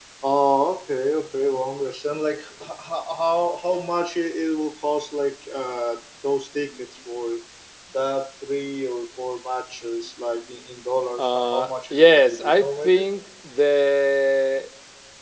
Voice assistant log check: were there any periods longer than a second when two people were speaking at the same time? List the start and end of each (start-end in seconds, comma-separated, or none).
11.2-13.1